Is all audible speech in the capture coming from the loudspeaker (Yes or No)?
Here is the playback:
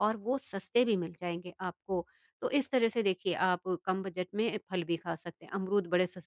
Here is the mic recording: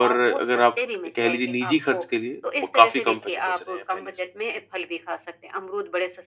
No